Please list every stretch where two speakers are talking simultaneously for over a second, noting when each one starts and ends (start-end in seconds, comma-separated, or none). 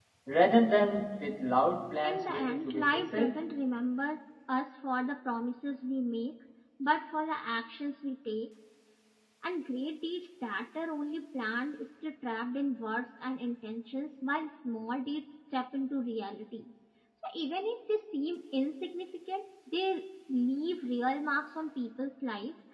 2.0-3.3